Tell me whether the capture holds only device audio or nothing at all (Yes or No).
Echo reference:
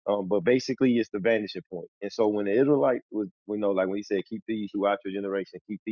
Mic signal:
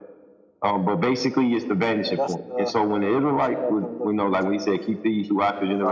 No